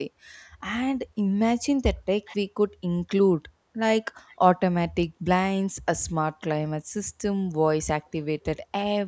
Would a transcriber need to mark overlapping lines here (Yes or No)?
No